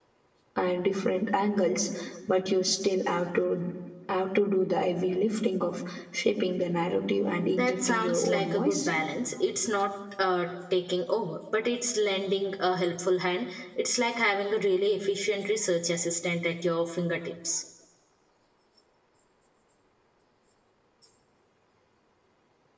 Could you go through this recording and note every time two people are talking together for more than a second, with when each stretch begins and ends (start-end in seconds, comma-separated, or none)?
7.5-8.9